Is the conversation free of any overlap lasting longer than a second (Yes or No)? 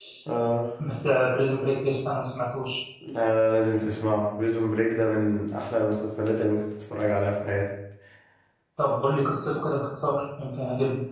Yes